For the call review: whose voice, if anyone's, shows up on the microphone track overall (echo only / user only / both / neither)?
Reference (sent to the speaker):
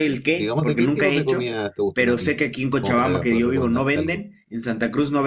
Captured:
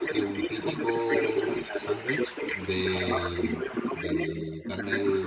both